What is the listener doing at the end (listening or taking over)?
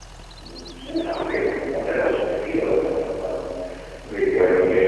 listening